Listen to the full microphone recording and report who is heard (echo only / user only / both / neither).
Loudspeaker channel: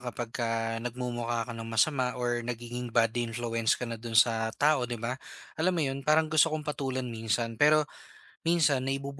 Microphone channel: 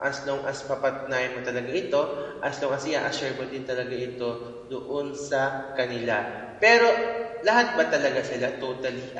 user only